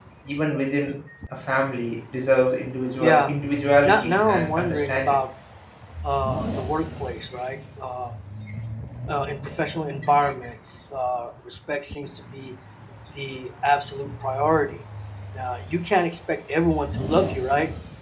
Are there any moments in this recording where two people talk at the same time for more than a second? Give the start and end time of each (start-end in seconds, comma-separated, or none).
3.8-5.2